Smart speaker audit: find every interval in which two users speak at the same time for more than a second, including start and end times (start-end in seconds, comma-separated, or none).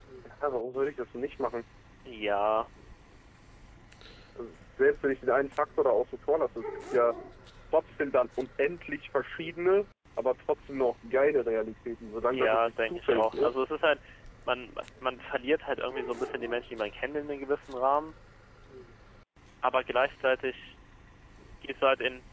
12.3-13.6